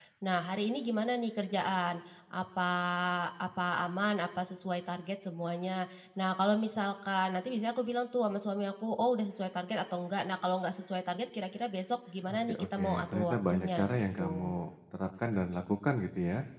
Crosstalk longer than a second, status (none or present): present